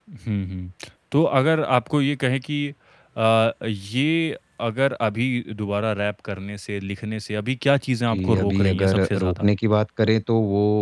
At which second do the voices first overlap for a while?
8.1 s

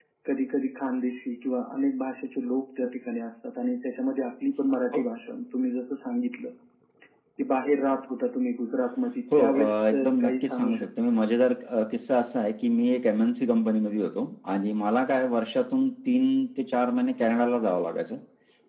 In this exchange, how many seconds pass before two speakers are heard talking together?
9.3 s

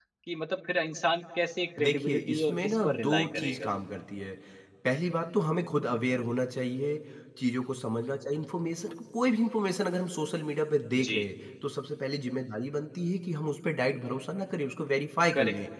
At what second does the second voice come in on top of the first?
1.8 s

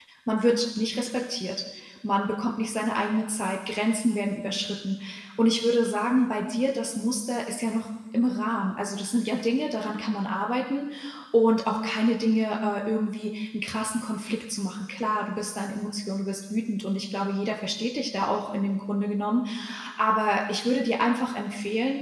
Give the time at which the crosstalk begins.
none

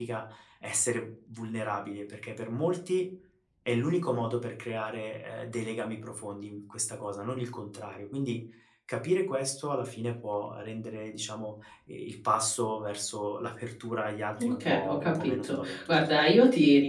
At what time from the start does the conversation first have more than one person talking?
14.4 s

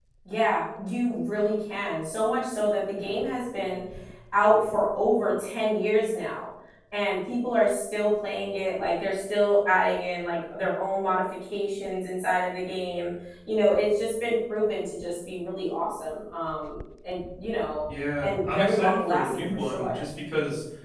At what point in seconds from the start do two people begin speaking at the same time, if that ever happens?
18.2 s

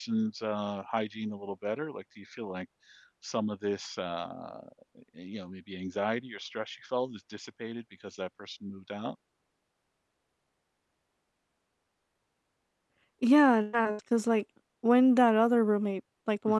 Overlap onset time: none

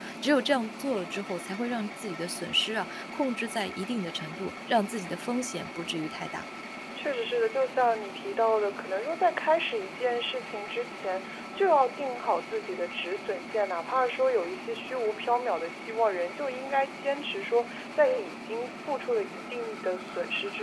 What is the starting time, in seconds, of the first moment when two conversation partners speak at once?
none

